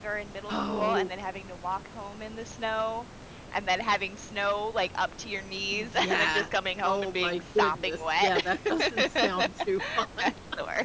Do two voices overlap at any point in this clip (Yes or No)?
Yes